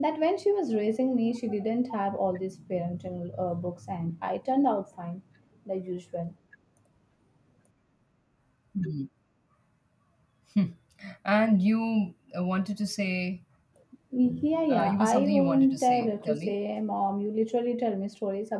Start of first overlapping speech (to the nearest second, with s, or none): 15 s